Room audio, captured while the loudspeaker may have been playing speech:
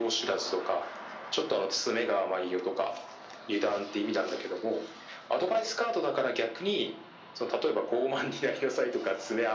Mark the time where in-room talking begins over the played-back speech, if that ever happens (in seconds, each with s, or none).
none